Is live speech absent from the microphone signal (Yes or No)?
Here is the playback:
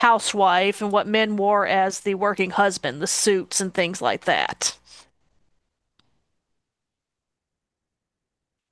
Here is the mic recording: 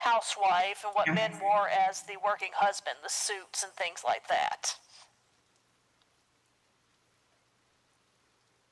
No